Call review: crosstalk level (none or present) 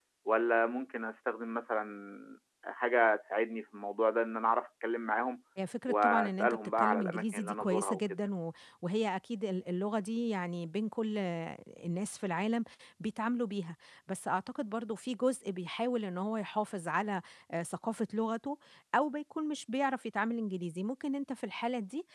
present